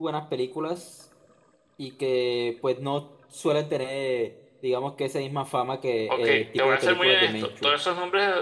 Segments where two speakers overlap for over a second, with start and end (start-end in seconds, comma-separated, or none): 6.1-7.7